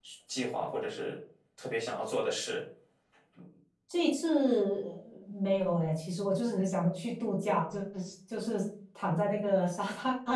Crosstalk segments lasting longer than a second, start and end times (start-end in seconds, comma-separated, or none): none